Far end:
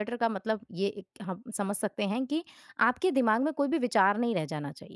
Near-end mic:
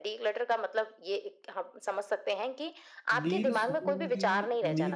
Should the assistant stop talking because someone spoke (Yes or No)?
Yes